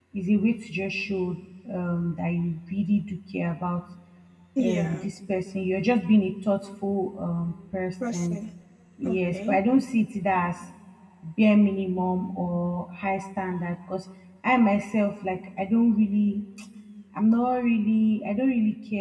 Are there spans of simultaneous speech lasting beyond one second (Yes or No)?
No